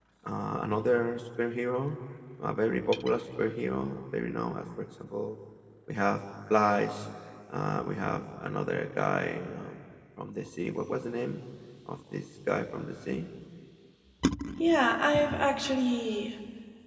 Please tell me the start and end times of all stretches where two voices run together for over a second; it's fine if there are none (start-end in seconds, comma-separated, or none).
none